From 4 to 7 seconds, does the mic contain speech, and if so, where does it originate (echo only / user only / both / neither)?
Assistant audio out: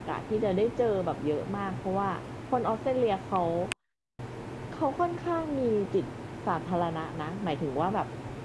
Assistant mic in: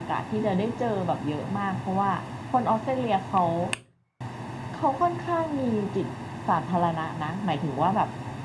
echo only